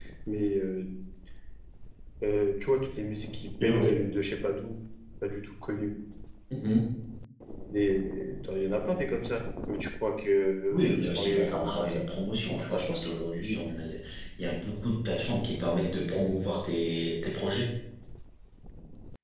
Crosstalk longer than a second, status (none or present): present